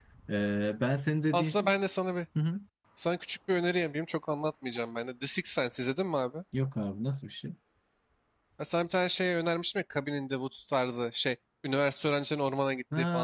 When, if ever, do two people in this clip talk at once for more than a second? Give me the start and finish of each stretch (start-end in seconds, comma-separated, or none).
none